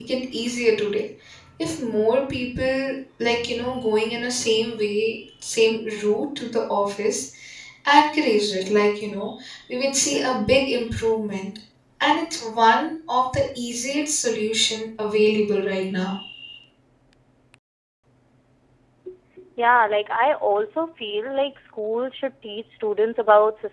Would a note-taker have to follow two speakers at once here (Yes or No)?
No